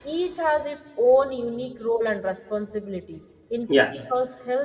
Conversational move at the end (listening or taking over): listening